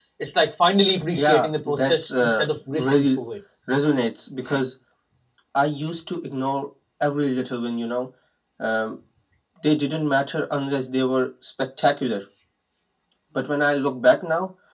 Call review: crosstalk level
present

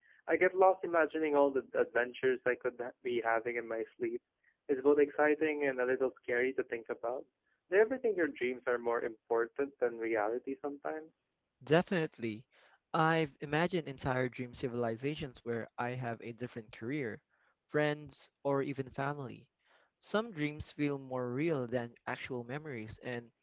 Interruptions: none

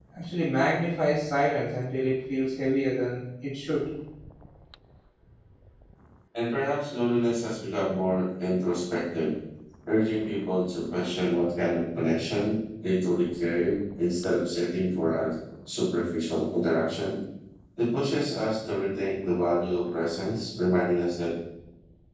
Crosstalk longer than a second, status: none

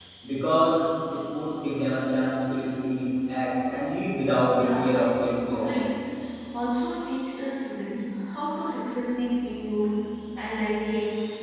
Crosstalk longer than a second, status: present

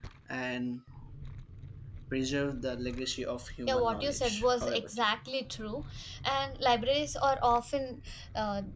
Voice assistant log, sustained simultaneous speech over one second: present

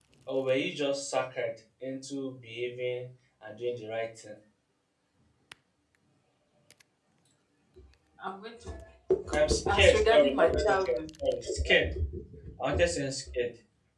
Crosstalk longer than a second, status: present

